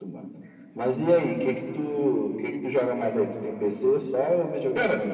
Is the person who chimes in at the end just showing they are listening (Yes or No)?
No